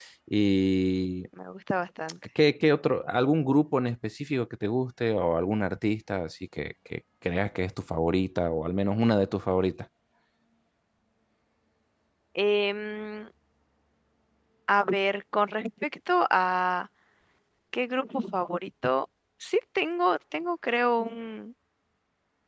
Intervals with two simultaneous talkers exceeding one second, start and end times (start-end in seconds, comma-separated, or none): none